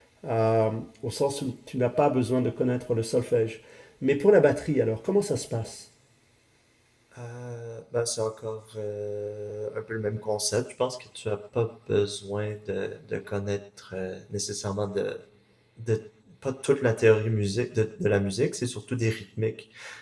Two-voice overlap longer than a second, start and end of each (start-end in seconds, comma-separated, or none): none